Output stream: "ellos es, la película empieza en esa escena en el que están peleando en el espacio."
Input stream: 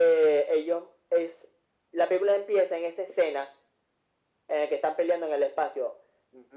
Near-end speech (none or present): none